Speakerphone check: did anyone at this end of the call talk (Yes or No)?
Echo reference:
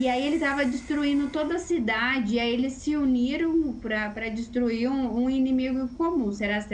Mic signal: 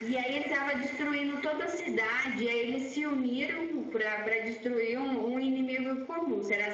No